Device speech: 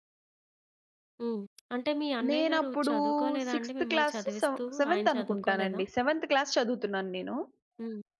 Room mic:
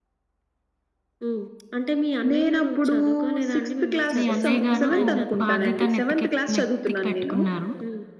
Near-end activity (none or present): present